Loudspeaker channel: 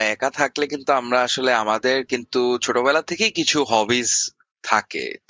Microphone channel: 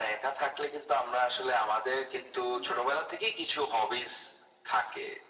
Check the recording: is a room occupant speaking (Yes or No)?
Yes